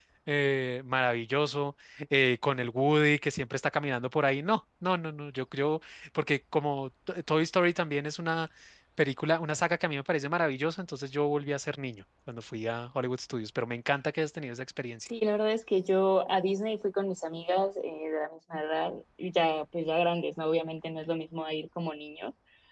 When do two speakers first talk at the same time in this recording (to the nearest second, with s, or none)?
none